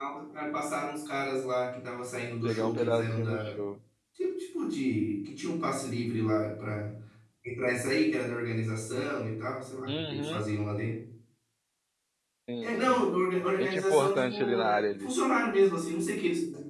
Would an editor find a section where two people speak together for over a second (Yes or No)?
Yes